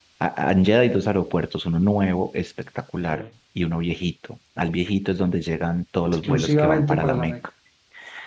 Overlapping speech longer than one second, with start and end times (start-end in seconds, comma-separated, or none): 6.0-7.4